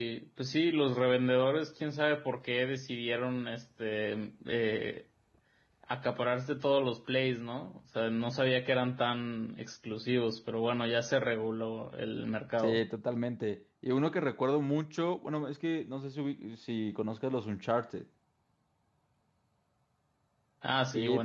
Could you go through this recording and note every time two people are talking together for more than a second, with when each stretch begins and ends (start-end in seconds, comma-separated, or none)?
none